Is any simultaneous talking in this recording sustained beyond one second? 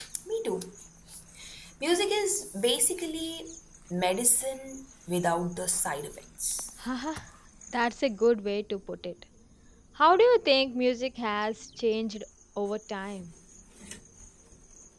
No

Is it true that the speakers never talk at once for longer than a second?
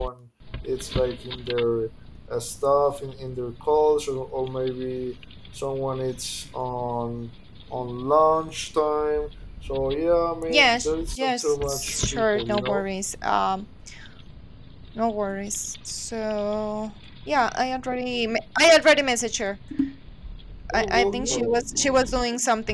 No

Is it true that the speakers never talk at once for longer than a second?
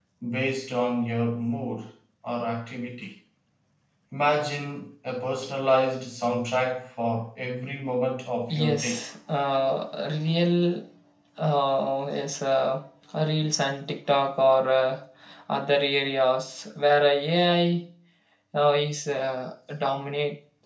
Yes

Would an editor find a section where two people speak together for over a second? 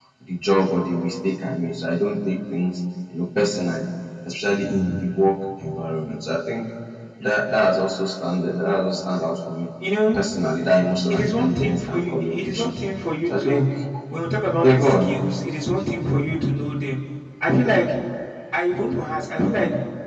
Yes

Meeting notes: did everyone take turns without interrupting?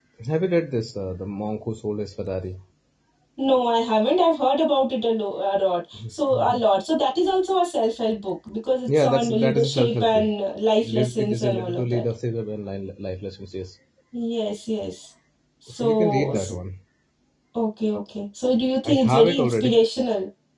No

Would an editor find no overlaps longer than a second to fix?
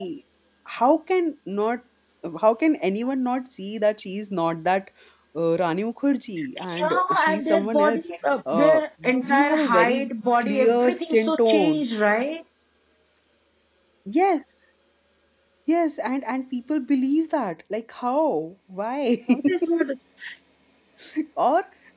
No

